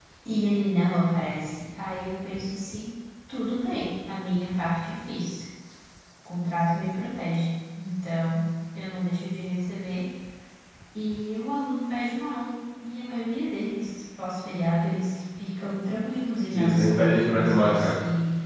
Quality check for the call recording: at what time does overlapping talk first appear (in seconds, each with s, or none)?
16.5 s